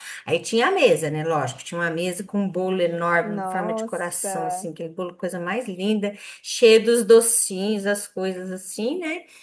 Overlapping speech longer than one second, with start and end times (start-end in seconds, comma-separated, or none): 3.2-4.7